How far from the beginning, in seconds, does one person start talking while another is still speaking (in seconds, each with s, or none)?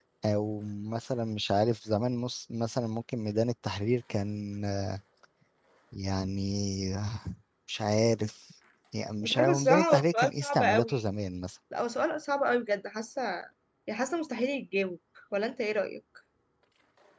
9.2 s